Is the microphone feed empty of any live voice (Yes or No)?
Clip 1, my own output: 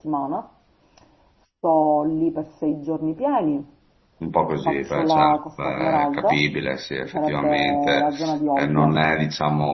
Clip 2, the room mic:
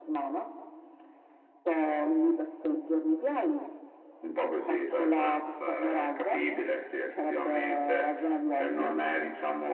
Yes